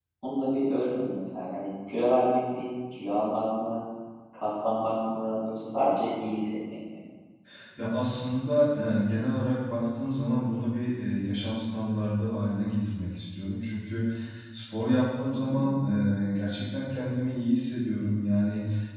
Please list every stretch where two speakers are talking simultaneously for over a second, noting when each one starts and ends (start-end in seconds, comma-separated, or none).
none